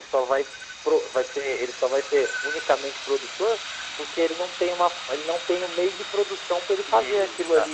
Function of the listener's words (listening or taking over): taking over